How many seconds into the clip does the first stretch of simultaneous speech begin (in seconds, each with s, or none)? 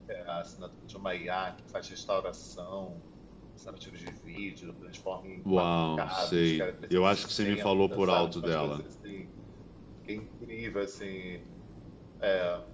5.5 s